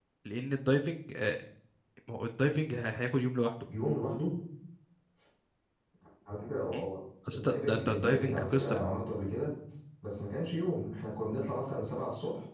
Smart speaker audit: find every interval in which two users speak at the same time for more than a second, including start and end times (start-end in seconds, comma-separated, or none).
7.3-8.8